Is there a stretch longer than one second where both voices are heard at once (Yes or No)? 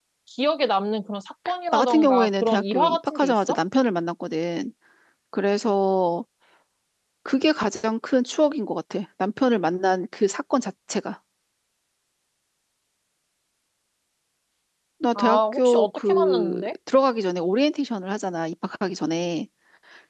Yes